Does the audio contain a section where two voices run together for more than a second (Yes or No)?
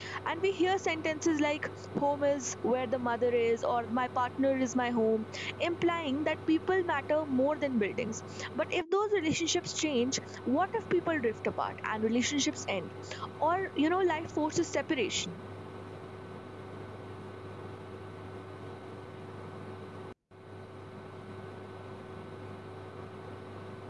No